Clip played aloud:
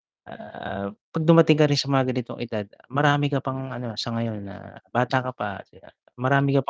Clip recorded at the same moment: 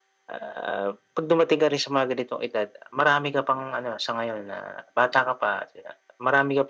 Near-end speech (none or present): none